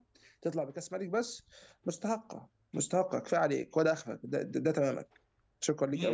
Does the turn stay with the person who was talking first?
No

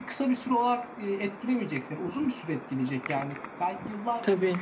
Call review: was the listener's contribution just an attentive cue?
Yes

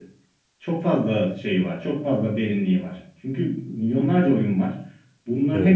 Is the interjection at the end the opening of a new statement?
No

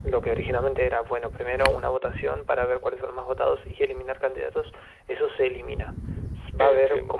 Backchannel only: Yes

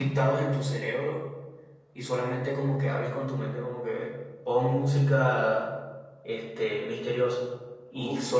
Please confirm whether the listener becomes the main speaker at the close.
No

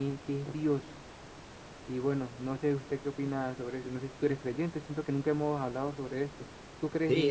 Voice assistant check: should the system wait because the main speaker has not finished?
No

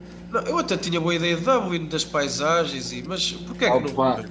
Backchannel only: No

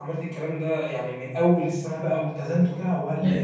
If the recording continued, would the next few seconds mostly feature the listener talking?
Yes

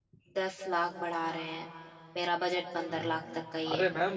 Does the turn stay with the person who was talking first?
No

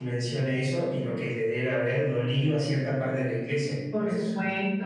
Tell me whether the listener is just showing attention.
No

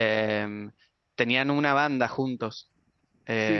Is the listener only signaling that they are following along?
No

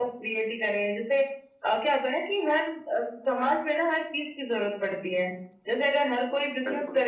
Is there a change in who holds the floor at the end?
No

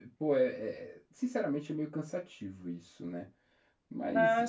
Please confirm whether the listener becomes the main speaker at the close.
Yes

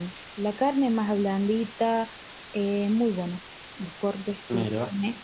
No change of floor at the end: Yes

